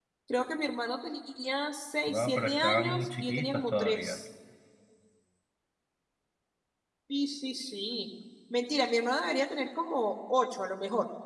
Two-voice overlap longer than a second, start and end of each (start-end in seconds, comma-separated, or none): 2.1-4.2